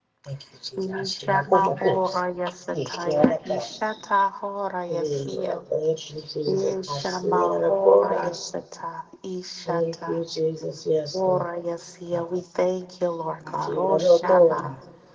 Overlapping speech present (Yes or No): Yes